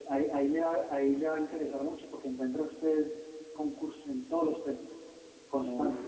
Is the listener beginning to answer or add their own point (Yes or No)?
Yes